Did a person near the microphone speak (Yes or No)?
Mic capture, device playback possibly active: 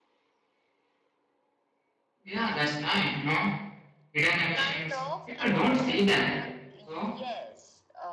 Yes